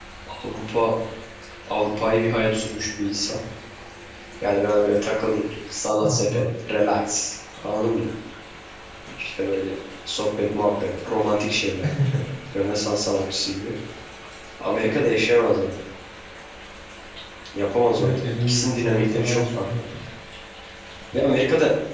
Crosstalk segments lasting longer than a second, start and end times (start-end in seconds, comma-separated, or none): 18.0-19.6